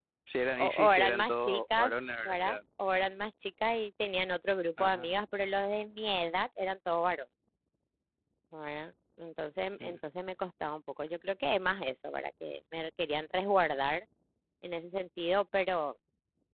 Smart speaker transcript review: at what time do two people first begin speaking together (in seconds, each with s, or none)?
0.6 s